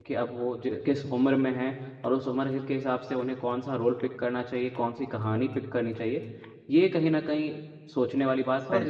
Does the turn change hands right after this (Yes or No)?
No